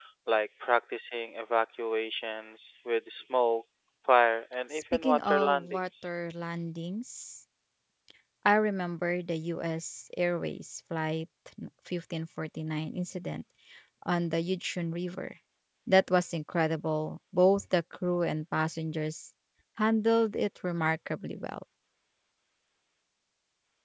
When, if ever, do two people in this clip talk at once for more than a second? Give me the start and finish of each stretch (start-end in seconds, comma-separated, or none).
4.7-6.1